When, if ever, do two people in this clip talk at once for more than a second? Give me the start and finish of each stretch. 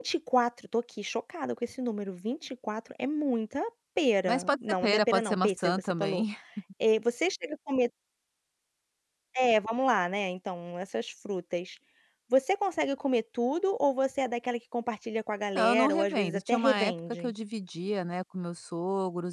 4.2-6.2, 15.6-17.3

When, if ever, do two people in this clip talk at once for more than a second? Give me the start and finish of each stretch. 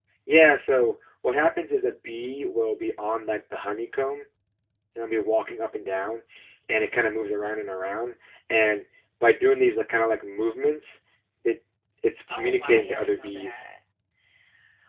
12.3-13.7

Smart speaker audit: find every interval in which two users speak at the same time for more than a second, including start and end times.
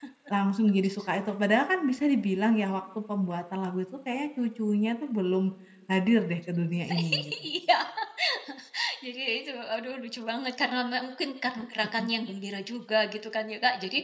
none

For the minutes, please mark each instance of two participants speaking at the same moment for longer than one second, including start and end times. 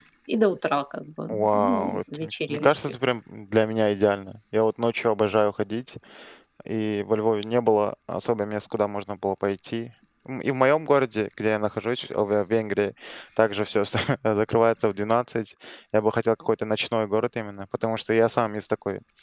1.3-2.7

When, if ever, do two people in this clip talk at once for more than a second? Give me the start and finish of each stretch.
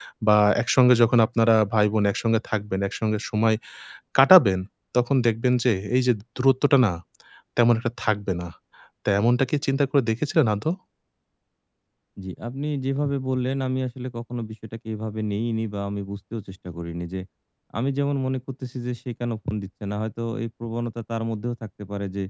none

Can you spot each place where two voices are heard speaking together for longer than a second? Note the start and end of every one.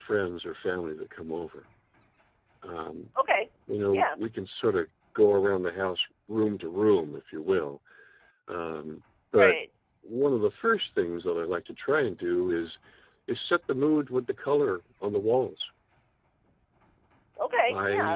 none

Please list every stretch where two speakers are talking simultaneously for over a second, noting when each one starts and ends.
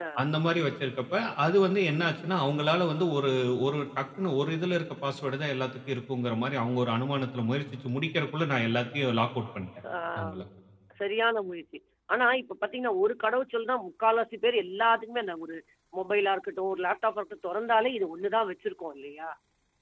none

